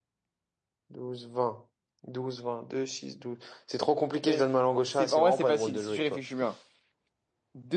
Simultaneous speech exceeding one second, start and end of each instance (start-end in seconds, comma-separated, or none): 4.9-6.2